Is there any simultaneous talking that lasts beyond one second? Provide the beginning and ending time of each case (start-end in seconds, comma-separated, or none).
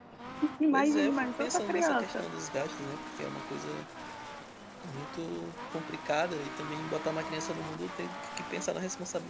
0.7-2.2